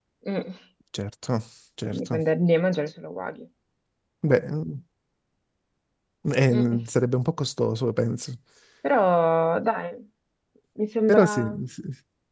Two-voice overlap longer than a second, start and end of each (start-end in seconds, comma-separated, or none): none